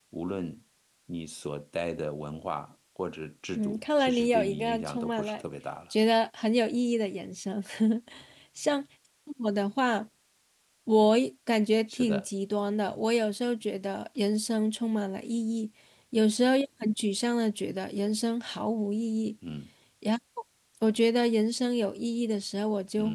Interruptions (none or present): present